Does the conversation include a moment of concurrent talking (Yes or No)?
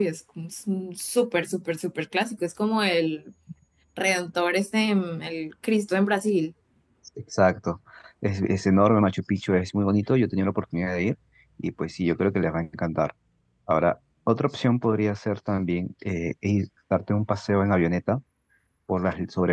No